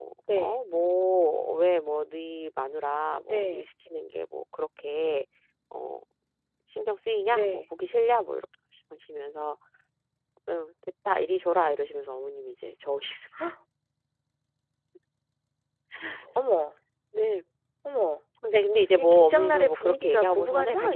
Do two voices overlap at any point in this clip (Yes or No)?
Yes